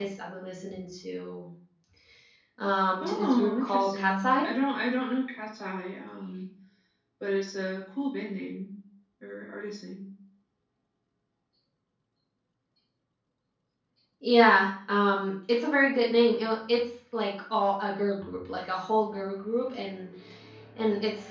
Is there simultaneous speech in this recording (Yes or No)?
Yes